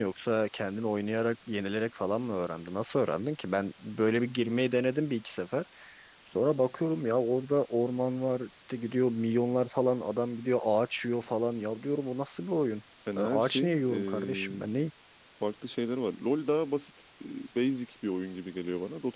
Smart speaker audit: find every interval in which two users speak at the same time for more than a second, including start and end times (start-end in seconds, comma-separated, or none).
13.2-14.7